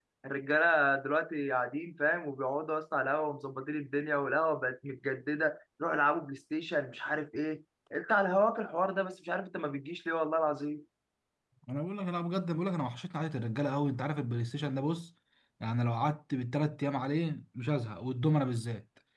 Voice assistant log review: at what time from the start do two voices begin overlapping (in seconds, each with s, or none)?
none